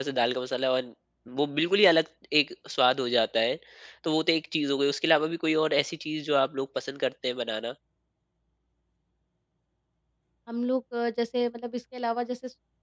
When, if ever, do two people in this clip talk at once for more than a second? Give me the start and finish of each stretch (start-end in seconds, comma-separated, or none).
none